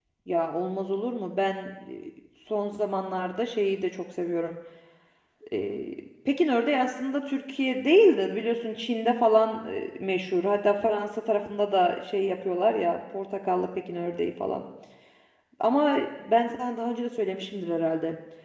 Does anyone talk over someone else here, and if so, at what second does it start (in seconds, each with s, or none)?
none